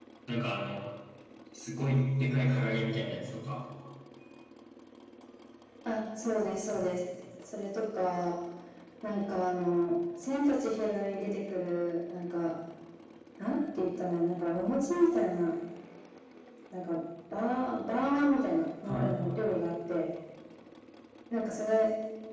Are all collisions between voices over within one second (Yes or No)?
Yes